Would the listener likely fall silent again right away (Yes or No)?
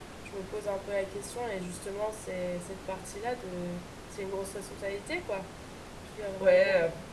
No